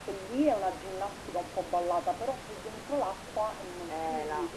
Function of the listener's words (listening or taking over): taking over